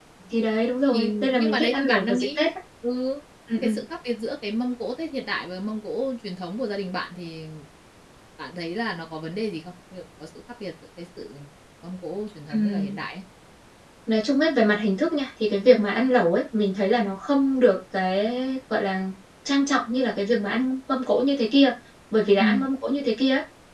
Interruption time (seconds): 0.9 s

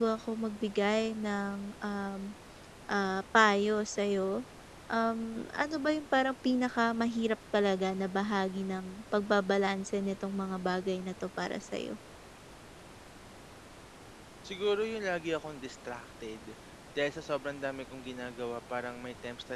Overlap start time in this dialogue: none

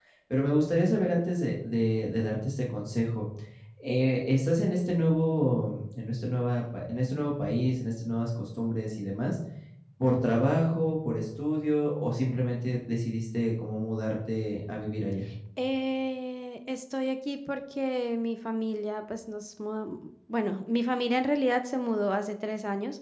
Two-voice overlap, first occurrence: none

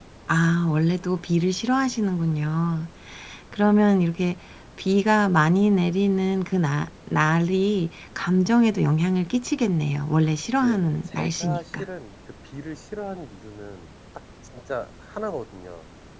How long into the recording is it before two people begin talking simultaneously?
10.6 s

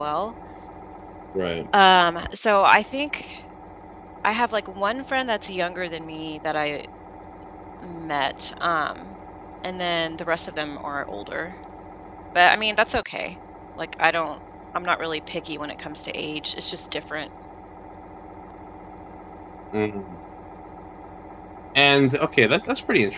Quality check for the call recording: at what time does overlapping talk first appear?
none

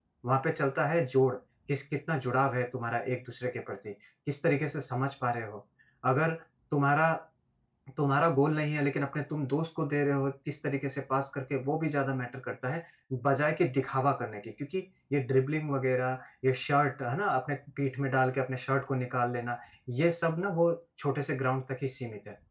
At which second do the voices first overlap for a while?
none

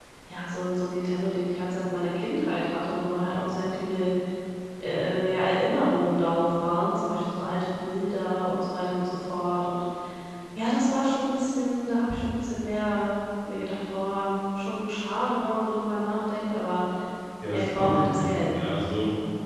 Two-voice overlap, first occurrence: 17.5 s

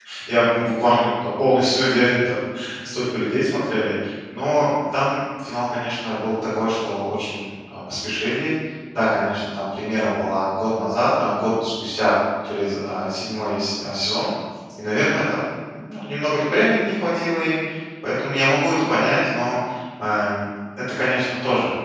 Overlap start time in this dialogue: none

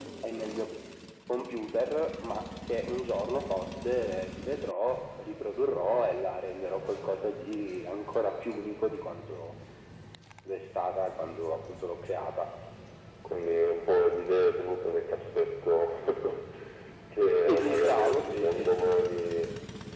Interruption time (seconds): 17.4 s

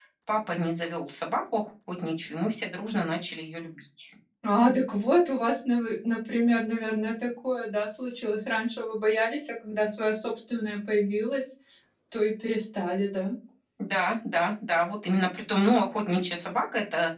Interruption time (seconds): none

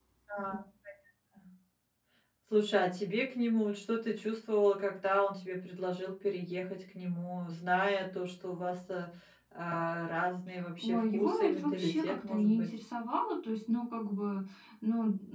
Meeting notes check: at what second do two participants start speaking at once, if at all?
10.8 s

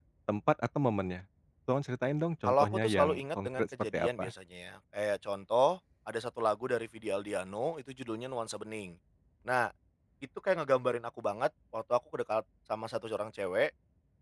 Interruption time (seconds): 2.5 s

